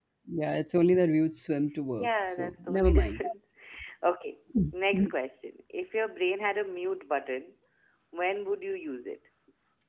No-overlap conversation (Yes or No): No